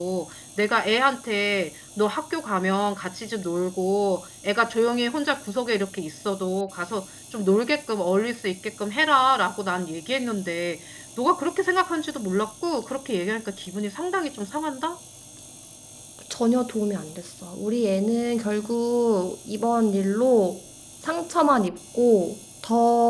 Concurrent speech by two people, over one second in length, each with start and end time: none

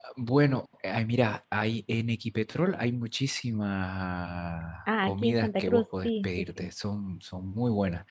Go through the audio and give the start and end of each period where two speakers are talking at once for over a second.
5.0-6.7

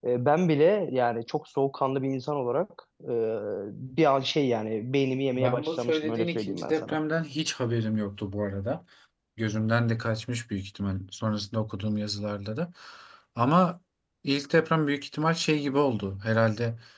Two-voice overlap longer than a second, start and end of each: 5.4-7.0

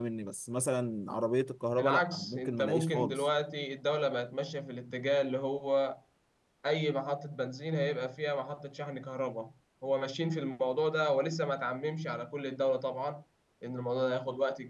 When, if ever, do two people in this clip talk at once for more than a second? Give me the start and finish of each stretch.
1.8-3.3

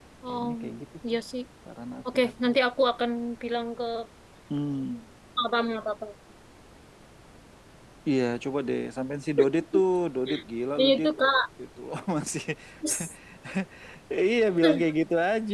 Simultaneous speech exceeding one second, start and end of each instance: none

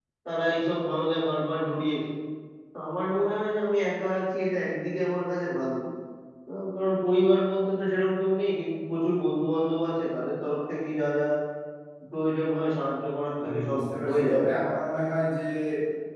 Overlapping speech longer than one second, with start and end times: 13.4-14.7

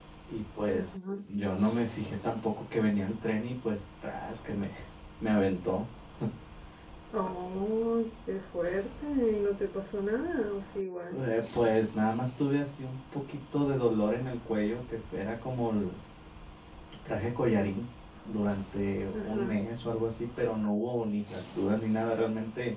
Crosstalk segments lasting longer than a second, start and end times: none

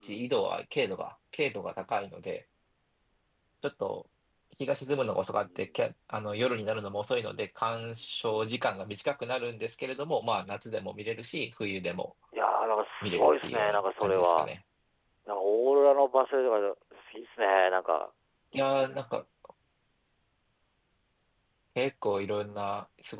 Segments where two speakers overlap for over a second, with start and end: 13.0-14.5

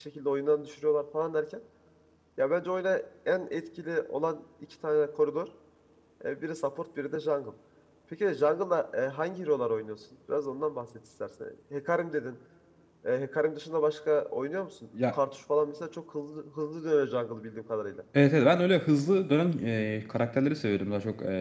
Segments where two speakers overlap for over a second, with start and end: none

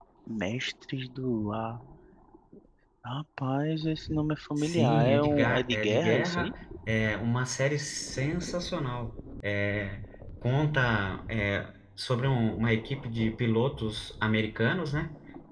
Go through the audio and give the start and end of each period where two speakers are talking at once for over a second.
4.6-6.5

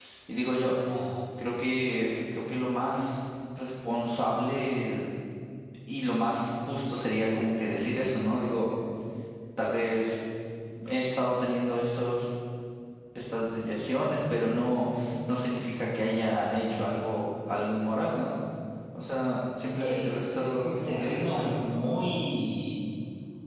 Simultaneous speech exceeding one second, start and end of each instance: 19.7-21.6

